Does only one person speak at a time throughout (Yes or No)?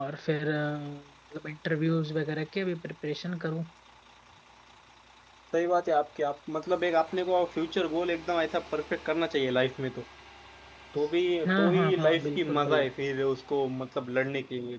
No